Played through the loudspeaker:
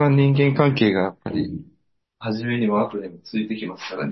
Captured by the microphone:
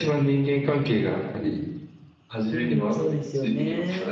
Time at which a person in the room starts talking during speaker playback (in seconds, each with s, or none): 2.5 s